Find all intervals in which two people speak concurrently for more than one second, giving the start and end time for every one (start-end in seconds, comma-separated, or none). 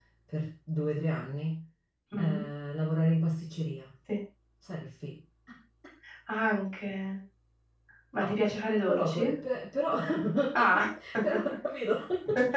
none